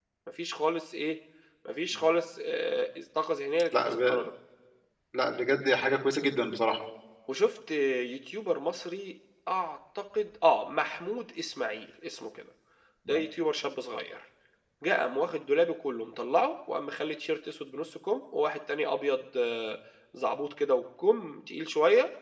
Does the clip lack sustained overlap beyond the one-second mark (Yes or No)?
Yes